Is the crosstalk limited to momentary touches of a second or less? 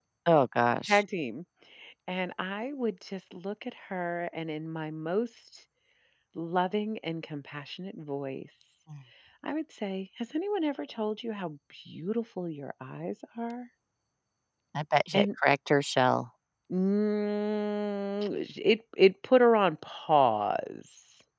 Yes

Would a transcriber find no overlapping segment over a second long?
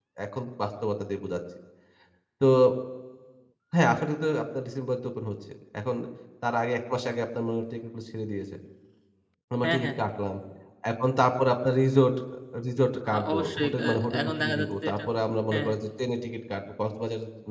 No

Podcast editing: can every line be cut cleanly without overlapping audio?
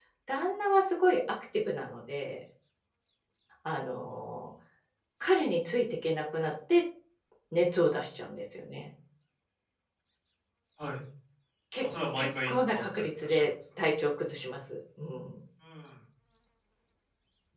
No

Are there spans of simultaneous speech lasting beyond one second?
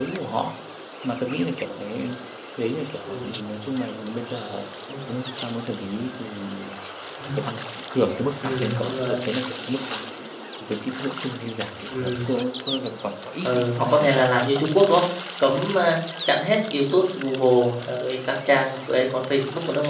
Yes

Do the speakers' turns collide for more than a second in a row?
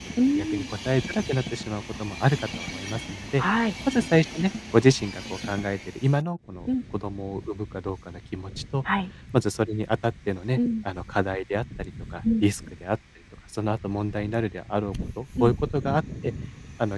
No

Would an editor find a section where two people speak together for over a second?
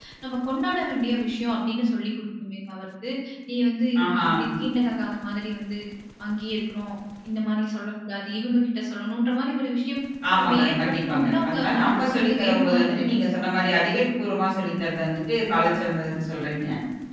Yes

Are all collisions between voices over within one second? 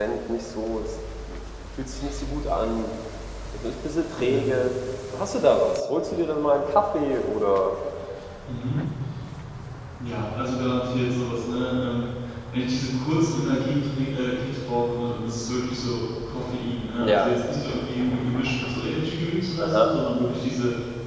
Yes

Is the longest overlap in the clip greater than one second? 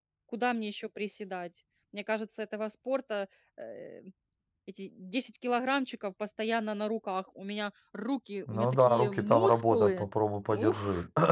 Yes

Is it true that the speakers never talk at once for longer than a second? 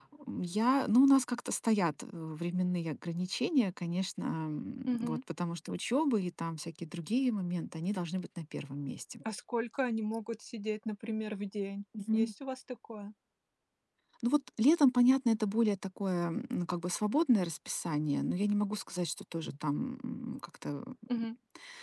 Yes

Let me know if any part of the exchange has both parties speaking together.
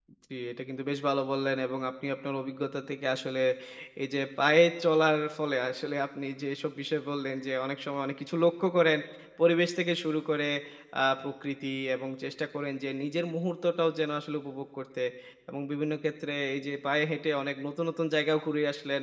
No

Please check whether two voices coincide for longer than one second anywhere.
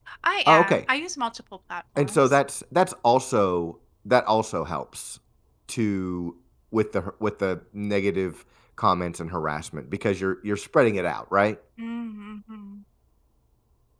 No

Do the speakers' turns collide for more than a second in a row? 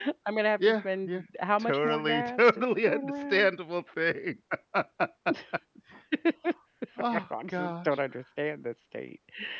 Yes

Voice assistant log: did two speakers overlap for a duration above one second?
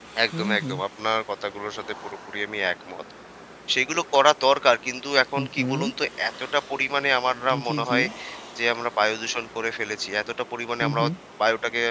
No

